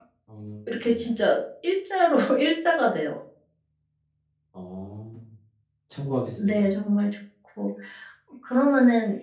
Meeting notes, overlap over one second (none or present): none